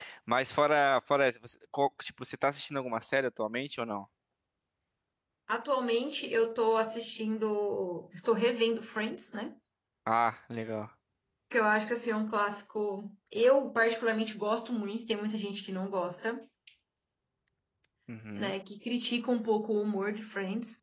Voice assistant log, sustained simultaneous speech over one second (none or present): none